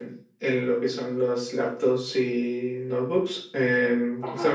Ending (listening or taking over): listening